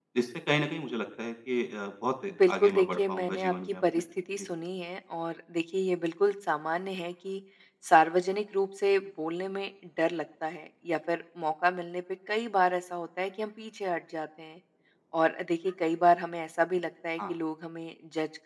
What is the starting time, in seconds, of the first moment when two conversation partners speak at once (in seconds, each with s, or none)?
2.3 s